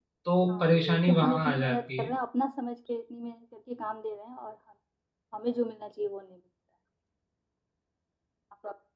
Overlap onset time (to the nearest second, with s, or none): 1 s